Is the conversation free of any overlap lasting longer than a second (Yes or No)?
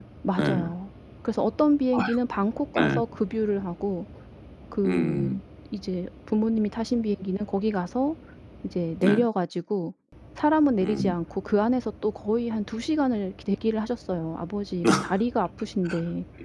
Yes